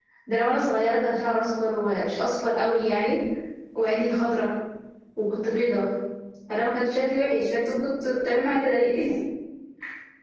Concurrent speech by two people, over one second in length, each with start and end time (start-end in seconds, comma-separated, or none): none